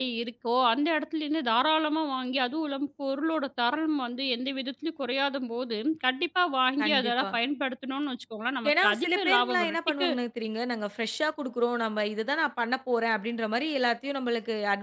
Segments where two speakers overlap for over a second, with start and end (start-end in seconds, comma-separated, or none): 8.7-10.1